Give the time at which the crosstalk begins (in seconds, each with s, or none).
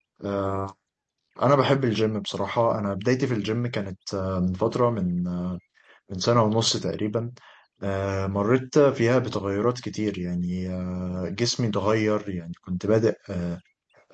none